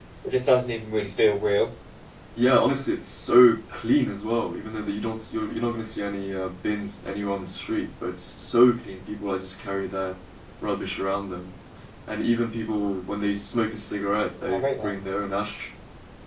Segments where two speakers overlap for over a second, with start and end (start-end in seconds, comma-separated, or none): none